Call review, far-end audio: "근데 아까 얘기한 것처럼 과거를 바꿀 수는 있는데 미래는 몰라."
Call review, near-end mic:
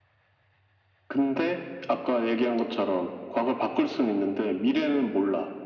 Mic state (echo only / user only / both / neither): echo only